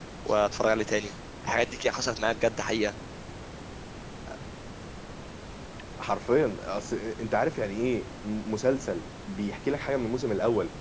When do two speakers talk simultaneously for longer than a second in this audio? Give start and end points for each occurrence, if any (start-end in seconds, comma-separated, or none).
none